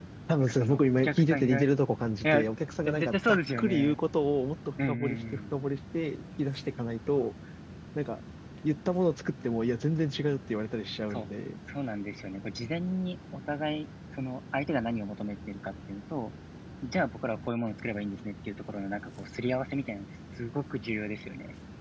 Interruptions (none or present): present